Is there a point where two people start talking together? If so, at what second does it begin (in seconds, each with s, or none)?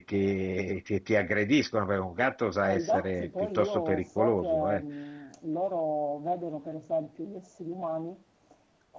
2.6 s